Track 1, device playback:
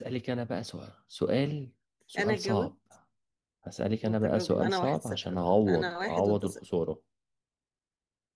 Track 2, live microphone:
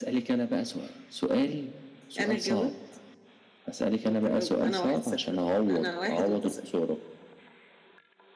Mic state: echo only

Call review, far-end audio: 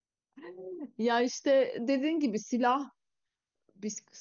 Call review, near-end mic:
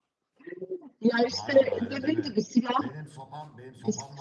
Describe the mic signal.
both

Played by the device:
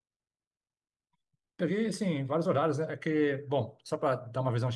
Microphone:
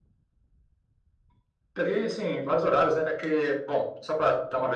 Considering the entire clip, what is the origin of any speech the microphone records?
echo only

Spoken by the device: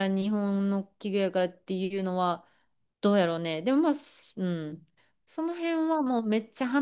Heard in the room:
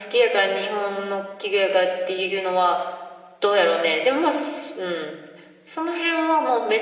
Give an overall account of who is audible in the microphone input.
echo only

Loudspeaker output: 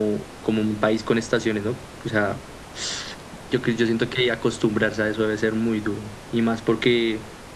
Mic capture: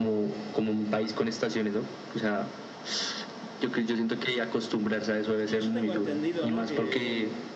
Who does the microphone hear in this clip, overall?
both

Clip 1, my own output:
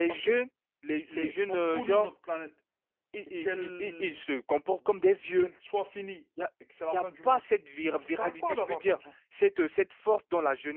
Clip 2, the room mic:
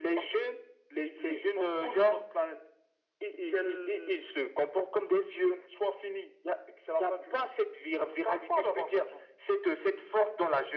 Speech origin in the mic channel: echo only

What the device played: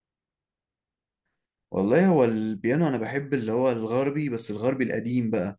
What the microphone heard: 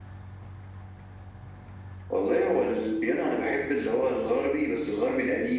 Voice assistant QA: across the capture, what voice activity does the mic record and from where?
echo only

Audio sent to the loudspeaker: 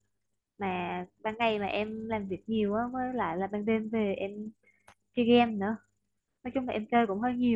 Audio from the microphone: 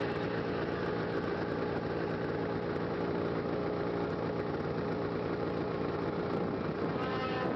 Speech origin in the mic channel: neither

